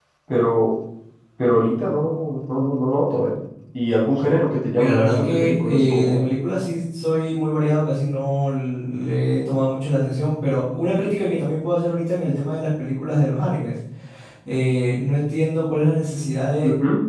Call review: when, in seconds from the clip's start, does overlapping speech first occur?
5 s

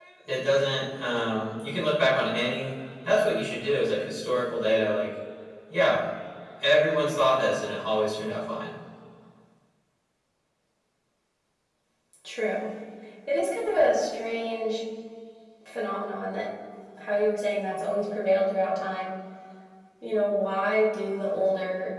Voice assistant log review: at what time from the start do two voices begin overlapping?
none

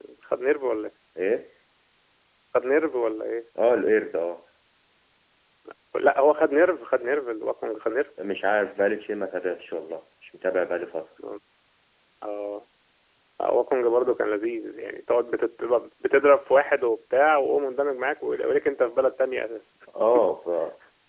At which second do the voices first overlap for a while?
none

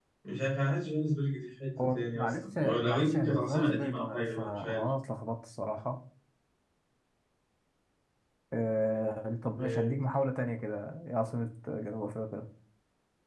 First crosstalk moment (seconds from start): 2 s

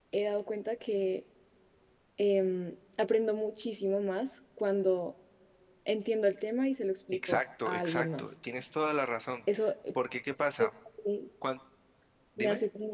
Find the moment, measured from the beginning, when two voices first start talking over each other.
7 s

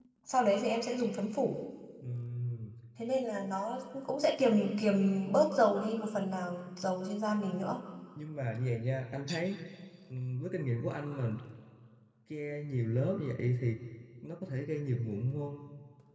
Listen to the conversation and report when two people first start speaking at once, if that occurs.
none

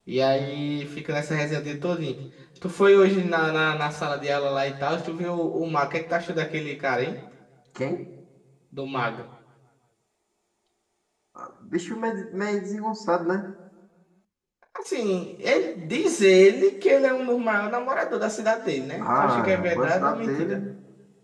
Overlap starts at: 19 s

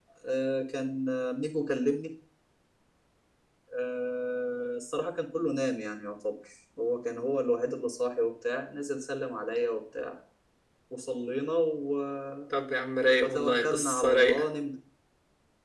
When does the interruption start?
13 s

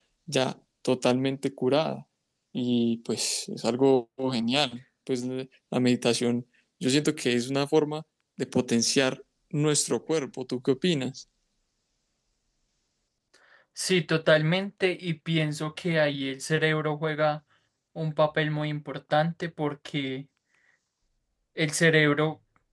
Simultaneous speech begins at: none

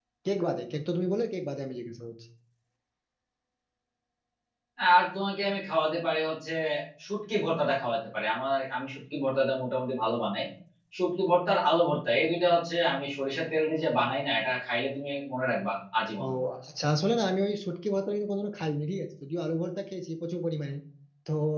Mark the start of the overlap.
none

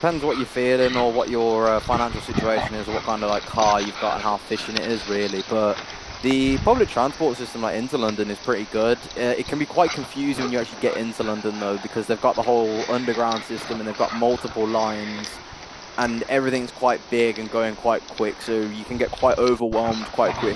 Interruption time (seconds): none

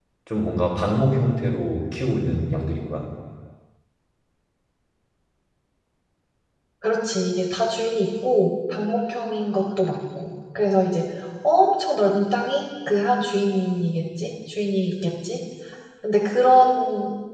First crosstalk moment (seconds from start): none

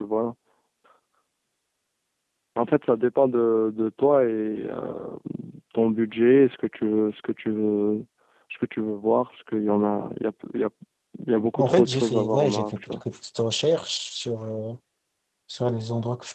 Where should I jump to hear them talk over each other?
12 s

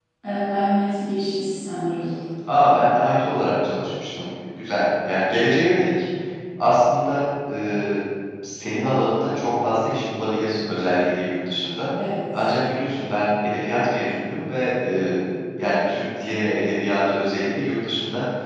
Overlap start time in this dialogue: none

